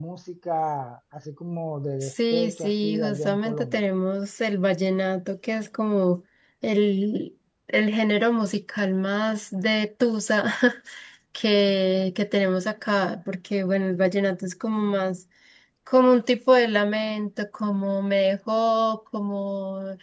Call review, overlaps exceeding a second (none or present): present